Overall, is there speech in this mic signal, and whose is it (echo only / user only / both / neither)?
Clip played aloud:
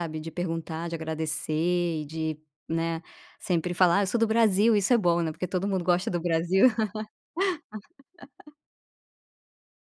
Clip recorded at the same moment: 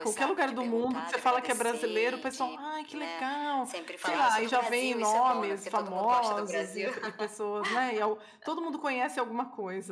both